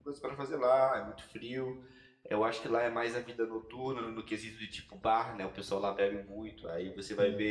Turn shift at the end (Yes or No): No